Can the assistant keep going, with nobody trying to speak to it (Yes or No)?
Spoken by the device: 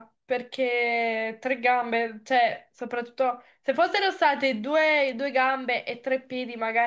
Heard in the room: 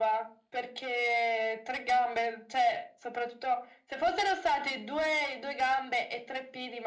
Yes